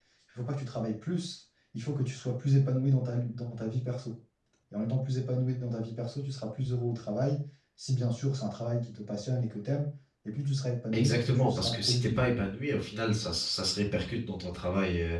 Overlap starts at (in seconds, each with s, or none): 10.9 s